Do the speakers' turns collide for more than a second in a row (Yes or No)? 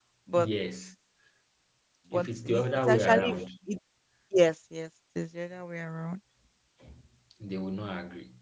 Yes